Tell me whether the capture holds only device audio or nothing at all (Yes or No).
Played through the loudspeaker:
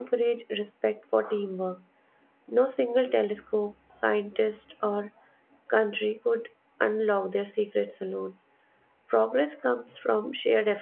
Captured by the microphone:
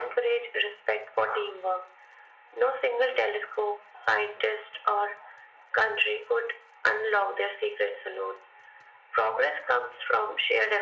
Yes